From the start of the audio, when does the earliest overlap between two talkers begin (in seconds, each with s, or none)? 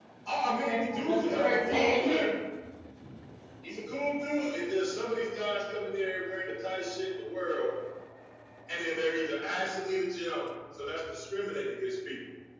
0.6 s